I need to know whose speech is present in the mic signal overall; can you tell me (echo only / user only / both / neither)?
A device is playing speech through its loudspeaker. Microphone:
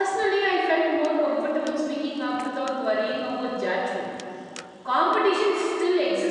user only